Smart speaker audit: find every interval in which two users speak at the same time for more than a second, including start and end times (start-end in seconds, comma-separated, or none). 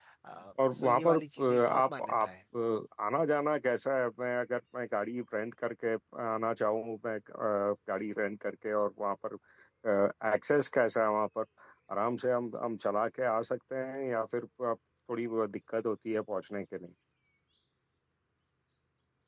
0.8-2.3